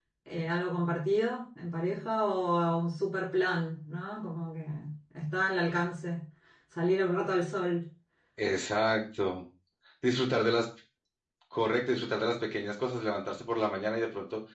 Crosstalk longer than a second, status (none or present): none